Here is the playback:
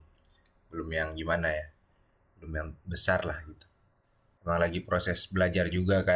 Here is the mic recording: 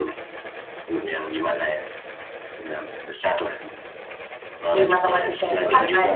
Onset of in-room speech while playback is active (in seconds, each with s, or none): 4.7 s